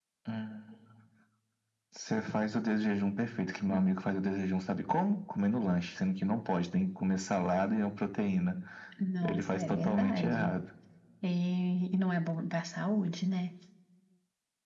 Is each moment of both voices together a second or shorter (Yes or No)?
No